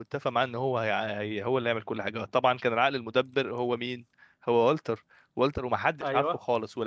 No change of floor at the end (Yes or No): Yes